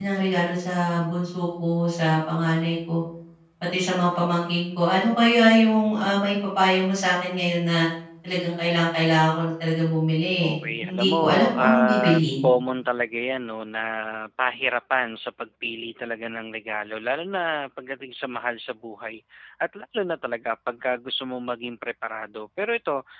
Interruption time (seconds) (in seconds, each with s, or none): 10.4 s